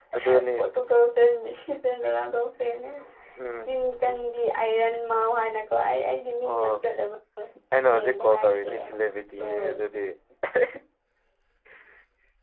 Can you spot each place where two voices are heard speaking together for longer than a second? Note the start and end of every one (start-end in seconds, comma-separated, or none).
7.9-9.8